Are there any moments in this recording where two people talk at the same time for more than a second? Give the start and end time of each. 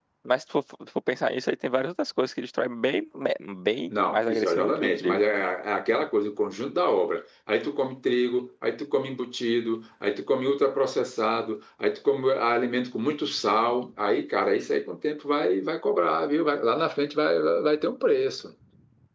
3.9-5.2

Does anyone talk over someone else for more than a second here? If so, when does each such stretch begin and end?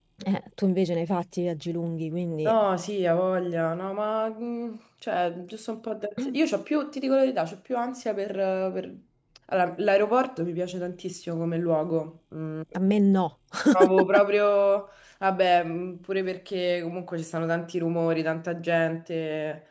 none

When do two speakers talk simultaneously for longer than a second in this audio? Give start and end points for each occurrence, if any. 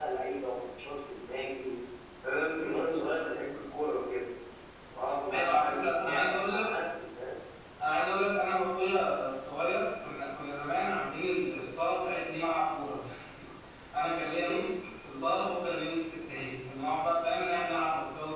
5.3-6.7

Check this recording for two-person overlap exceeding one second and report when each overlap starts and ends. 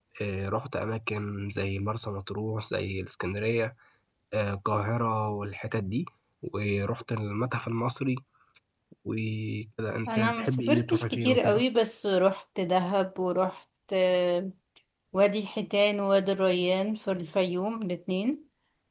10.1-11.6

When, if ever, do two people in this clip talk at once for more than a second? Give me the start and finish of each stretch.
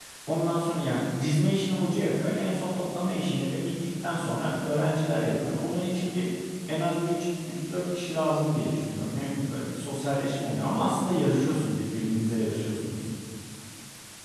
none

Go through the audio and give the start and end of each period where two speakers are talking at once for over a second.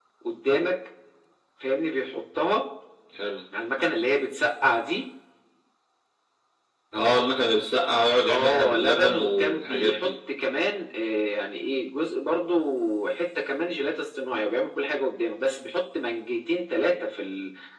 8.3-10.2

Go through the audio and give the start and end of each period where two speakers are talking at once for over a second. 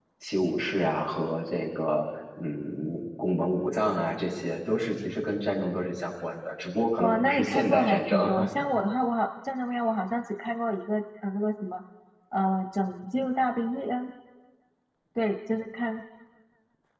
7.0-8.2

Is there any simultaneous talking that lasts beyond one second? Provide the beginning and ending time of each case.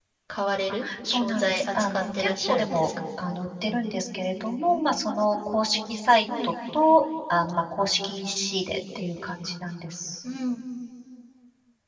1.1-2.9

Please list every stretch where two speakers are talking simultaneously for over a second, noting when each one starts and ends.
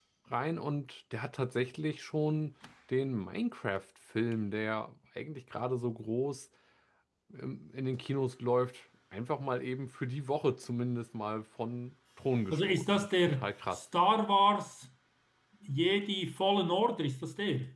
12.5-13.8

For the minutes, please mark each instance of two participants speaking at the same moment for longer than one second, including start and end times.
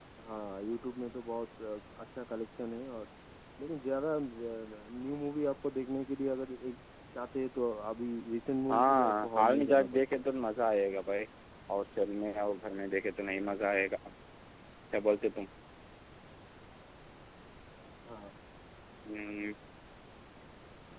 8.7-10.3

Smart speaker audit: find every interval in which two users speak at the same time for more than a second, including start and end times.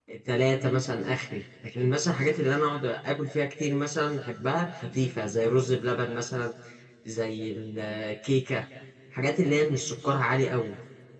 none

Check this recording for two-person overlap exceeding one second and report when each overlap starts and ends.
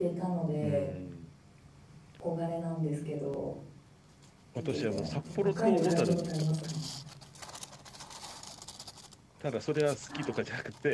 4.7-6.8

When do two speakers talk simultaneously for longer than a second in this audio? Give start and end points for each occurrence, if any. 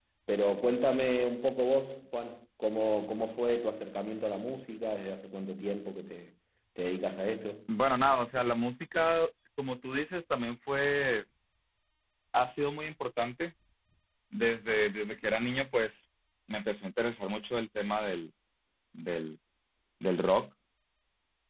none

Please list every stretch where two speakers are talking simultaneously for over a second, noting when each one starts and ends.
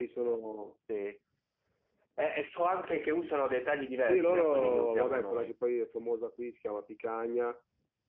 4.0-5.5

